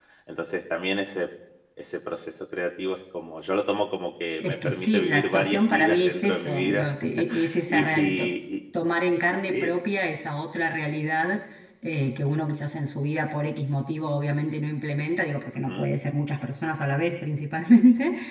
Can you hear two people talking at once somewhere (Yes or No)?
Yes